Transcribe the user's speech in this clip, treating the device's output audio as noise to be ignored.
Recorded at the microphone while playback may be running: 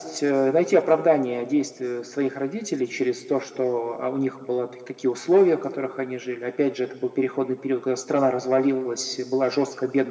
none

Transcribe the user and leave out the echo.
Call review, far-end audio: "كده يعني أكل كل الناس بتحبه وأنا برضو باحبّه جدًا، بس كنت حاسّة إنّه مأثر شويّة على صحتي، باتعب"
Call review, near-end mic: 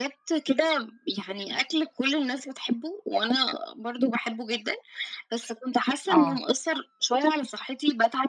آه.

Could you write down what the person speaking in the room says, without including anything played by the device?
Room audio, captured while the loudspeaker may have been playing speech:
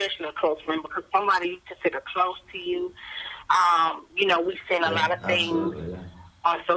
Yeah. Absolutely. Yeah.

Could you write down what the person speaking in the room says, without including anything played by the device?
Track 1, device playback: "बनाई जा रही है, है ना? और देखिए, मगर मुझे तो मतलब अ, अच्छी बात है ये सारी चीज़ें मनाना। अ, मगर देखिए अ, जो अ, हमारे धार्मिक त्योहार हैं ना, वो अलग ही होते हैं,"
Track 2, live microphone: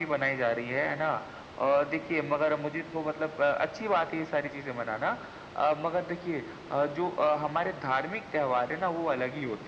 none

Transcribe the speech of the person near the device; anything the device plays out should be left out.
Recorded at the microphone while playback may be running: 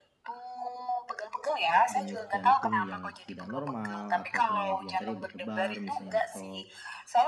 denyut jantung yang tidak normal, atau kemudian tadi berdebar, misalnya. Atau

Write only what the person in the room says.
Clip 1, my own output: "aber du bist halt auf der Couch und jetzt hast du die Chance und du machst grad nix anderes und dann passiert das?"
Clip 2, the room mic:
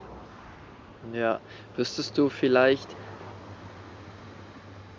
Ja. Wüsstest du vielleicht

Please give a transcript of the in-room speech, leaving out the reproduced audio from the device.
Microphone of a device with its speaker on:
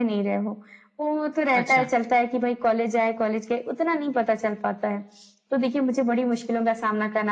अच्छा।

